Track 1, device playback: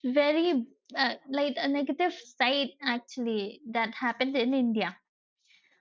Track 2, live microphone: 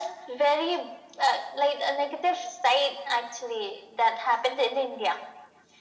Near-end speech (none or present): none